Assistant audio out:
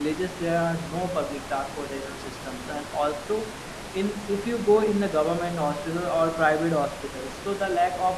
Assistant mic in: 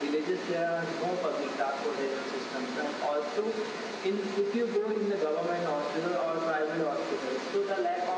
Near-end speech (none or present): none